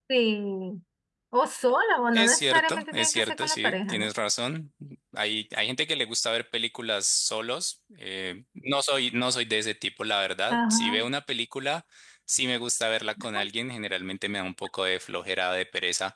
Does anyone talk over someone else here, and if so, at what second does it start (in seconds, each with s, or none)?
2.1 s